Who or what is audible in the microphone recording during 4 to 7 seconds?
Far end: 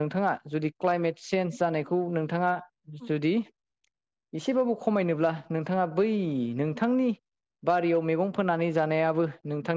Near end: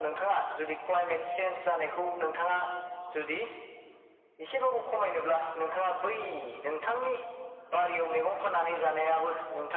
echo only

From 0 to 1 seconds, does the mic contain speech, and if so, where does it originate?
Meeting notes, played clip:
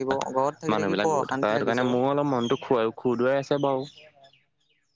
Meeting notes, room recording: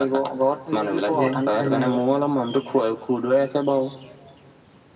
echo only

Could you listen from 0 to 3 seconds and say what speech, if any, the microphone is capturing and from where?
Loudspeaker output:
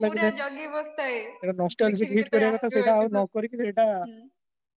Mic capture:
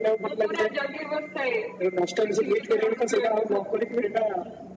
echo only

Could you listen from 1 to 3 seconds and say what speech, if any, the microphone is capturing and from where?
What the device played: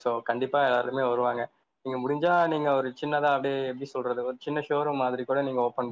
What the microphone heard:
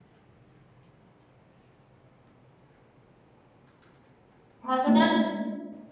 neither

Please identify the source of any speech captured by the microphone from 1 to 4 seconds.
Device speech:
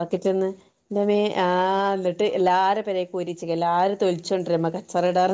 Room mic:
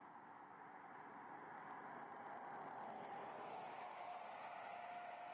neither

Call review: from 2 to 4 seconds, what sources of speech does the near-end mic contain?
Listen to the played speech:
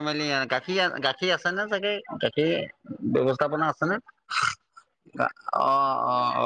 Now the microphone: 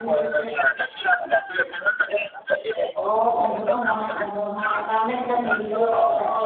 both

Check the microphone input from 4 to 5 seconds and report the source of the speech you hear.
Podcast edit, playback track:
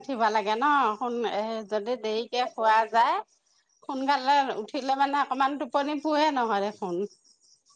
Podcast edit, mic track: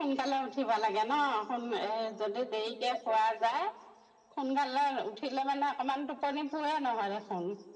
echo only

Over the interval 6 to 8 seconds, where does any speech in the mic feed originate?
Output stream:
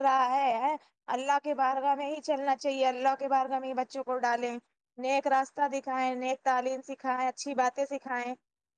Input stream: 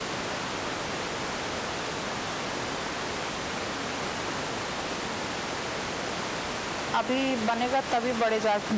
user only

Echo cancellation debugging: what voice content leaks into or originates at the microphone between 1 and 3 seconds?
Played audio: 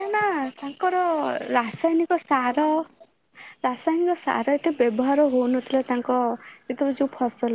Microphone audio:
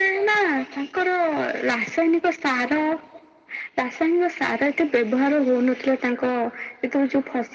echo only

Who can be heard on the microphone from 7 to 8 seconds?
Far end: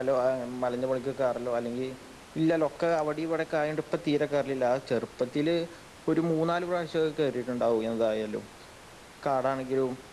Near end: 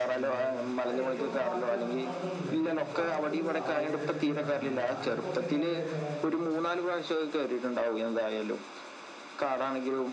echo only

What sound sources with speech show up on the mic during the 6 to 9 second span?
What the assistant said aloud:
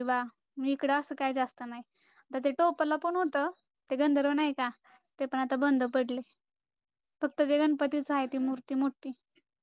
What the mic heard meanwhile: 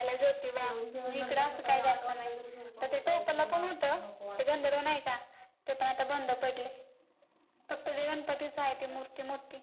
echo only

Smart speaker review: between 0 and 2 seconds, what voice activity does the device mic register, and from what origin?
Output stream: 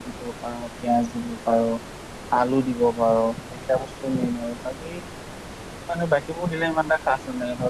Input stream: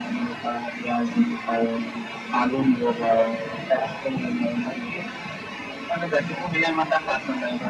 echo only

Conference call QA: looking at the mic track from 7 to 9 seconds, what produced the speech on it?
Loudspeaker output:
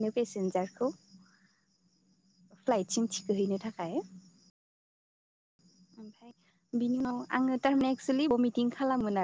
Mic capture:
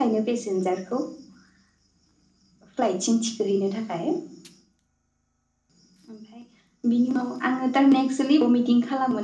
echo only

